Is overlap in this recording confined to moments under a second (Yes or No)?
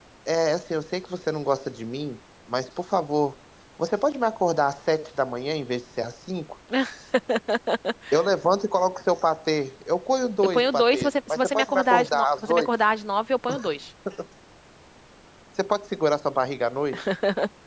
No